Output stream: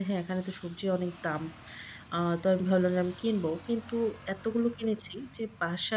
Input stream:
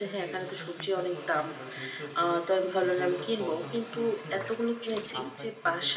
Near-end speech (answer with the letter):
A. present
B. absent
A